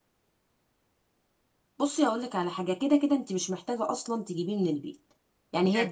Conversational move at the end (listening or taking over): listening